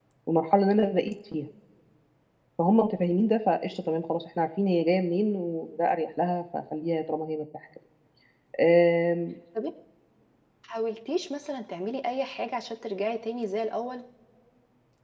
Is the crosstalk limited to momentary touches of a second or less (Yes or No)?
Yes